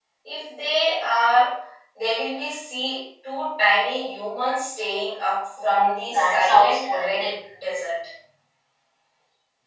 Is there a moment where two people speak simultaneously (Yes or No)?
Yes